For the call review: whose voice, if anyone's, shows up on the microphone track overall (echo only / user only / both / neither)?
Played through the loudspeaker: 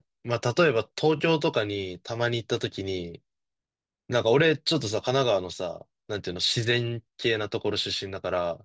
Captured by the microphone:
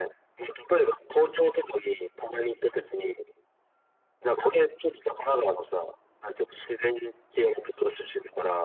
echo only